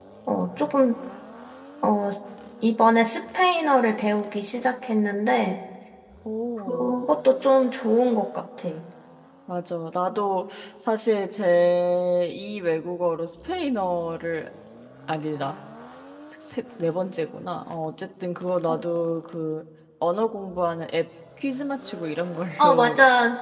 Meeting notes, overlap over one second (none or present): none